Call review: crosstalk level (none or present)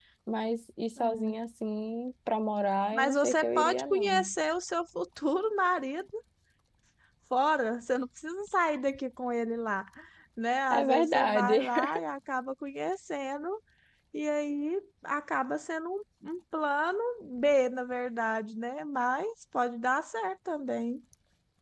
present